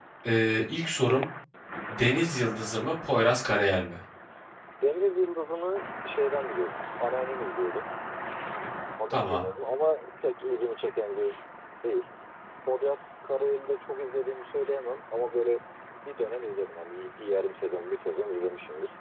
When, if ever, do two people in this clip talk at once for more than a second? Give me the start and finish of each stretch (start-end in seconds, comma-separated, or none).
none